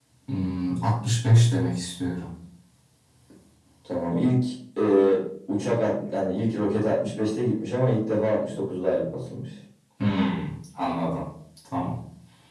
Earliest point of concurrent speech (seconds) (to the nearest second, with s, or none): none